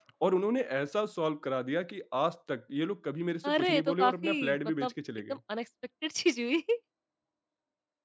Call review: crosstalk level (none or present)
present